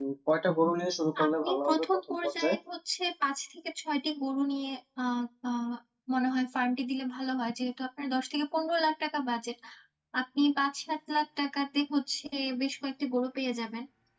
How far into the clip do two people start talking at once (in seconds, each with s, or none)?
1.3 s